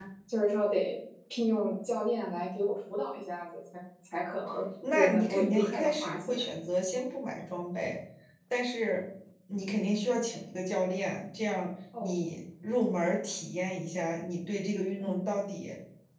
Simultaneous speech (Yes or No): Yes